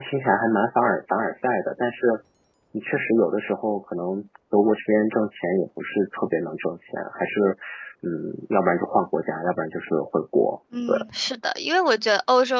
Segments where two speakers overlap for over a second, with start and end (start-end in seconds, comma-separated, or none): none